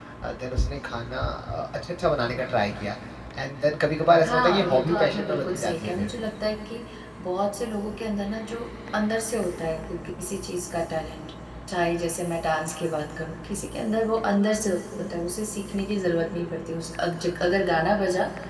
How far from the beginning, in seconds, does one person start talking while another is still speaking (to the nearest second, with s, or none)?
4 s